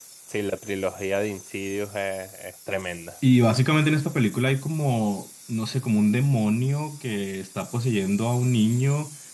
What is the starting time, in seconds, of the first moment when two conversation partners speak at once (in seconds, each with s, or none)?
none